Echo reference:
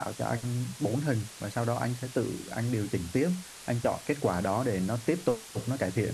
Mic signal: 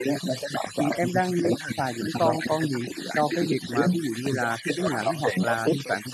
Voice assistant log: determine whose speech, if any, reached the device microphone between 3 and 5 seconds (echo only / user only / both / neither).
both